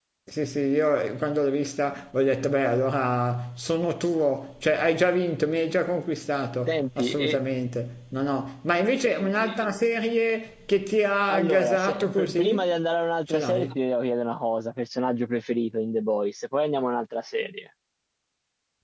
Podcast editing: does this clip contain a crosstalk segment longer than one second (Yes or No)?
Yes